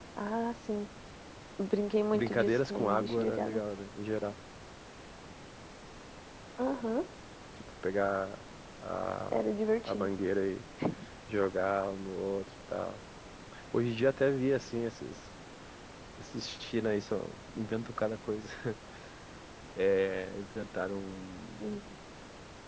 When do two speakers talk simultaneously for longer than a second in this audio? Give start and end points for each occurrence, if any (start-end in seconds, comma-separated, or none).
2.1-3.6